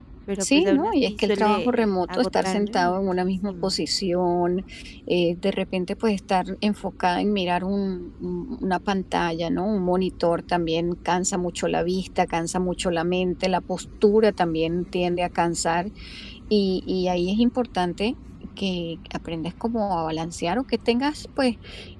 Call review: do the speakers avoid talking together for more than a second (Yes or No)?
No